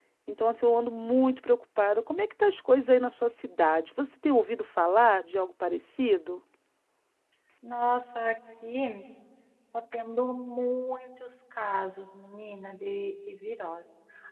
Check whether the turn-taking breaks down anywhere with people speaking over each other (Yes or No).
No